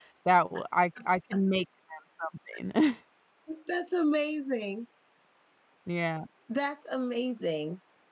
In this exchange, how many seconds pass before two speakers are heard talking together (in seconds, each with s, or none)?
none